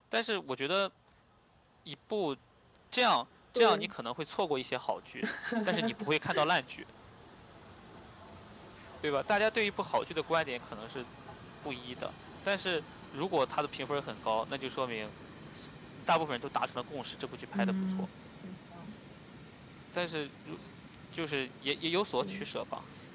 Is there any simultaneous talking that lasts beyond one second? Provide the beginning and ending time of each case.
none

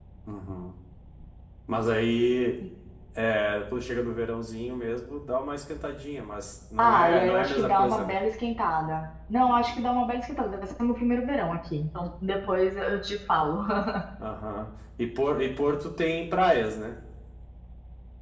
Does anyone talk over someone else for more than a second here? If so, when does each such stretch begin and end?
6.8-8.2

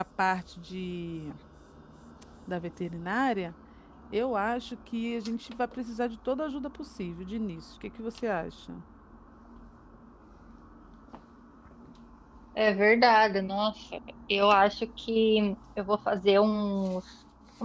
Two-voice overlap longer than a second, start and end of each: none

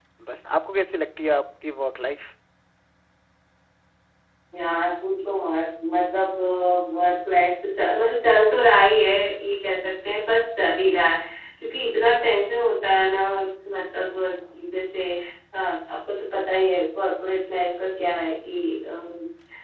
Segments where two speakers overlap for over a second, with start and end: none

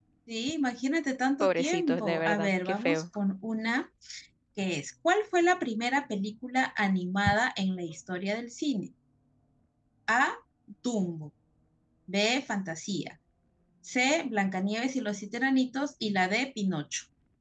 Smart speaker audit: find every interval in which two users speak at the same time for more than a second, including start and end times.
1.4-3.0

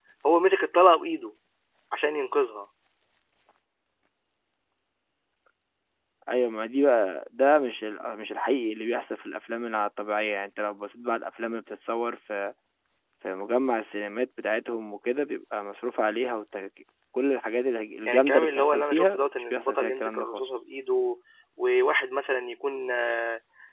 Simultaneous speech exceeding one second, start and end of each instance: 18.1-20.4

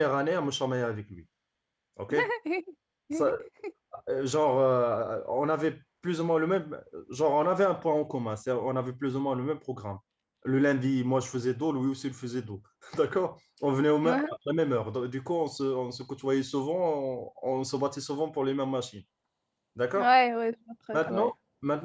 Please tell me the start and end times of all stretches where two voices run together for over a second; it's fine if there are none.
none

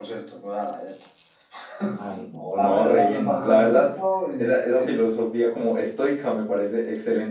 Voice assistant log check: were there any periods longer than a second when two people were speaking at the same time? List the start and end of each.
2.6-3.9

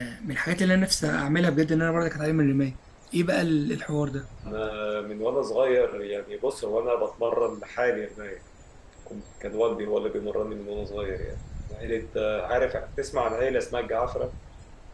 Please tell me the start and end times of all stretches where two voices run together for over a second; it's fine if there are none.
none

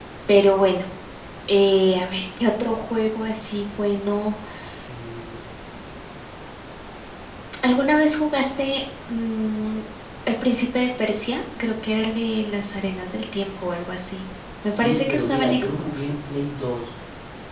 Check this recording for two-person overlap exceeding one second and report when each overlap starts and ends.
14.7-16.1

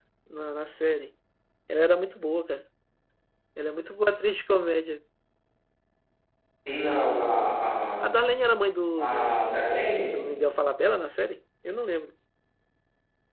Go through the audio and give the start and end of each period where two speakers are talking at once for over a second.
none

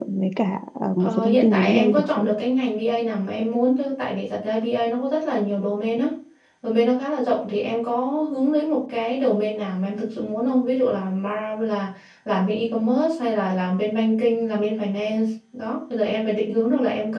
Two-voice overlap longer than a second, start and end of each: 1.0-2.3

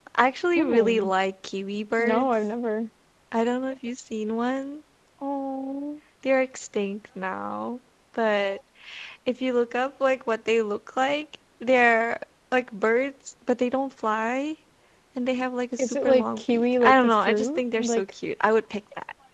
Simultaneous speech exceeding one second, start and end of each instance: 15.8-18.0

